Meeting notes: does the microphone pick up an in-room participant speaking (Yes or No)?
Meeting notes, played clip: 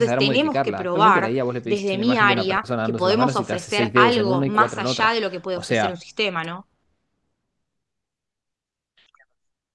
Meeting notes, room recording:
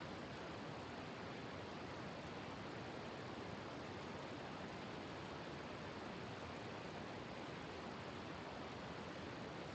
No